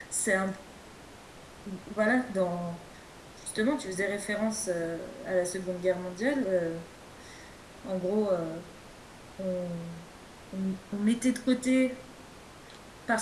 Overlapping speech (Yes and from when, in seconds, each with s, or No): No